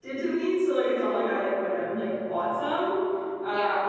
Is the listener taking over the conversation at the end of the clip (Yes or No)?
No